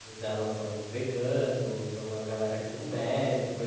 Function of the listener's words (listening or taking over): listening